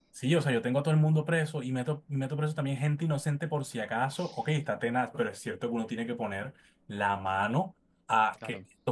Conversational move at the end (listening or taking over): listening